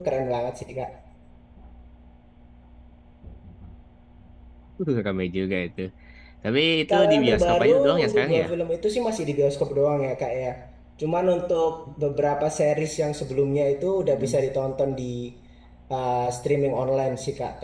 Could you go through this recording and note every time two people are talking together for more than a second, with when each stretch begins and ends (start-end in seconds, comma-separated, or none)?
6.9-8.5